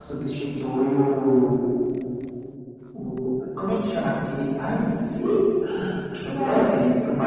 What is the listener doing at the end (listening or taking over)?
listening